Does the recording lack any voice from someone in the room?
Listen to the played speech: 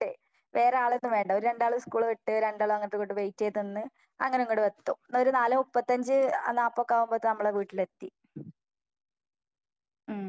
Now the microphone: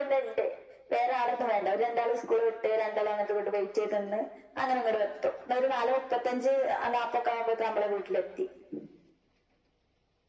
Yes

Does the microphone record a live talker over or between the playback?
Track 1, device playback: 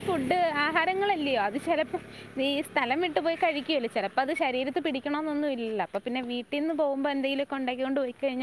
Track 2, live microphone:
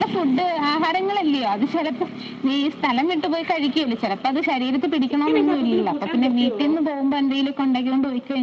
Yes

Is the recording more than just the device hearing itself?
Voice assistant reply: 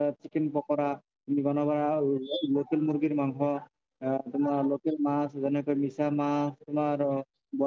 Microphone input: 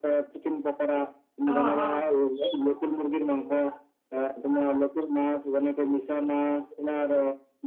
Yes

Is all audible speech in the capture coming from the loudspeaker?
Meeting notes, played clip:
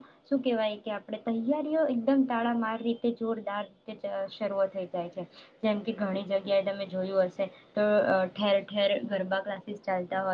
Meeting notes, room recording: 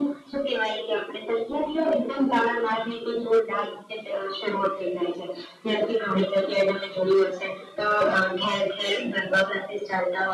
Yes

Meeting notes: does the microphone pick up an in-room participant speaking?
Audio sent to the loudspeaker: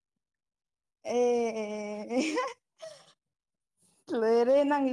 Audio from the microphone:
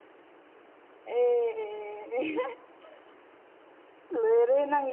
No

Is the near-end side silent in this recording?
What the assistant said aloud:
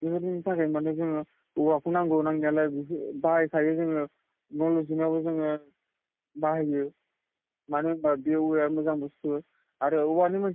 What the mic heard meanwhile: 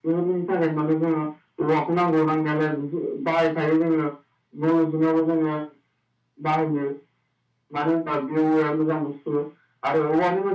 Yes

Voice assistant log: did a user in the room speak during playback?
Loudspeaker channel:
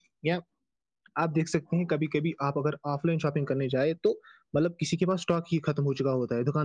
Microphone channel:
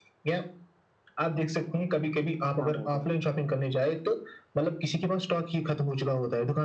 Yes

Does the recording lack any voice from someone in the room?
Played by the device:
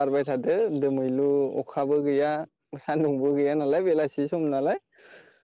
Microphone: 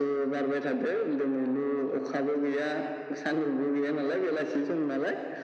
Yes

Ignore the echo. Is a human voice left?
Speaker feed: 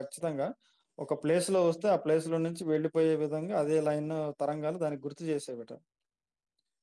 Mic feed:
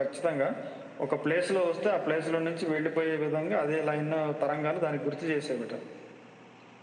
No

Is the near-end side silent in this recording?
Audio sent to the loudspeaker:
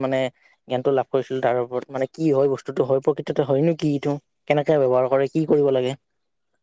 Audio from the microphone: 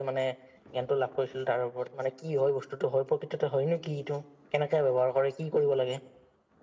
Yes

